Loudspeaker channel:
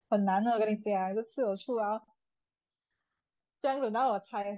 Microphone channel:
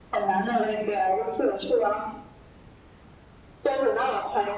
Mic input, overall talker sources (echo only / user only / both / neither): echo only